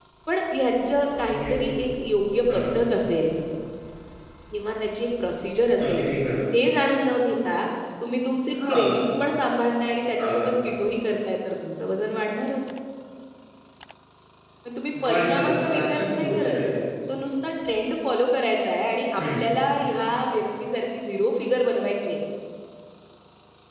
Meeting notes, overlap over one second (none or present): present